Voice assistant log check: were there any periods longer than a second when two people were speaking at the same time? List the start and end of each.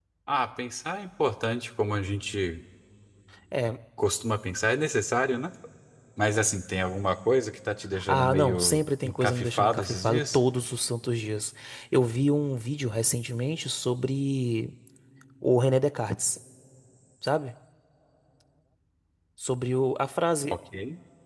8.1-10.4

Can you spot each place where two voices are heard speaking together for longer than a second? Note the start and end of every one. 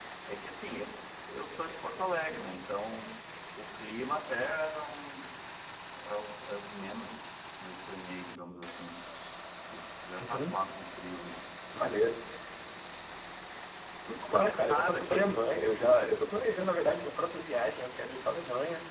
14.1-15.3

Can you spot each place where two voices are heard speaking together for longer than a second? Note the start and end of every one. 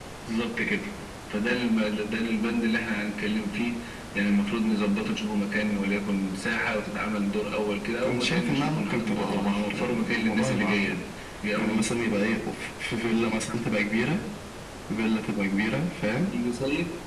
8.0-11.0

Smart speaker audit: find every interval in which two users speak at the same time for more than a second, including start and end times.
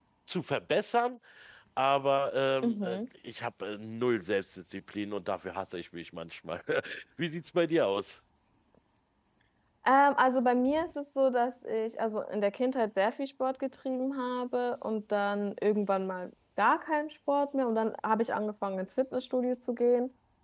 none

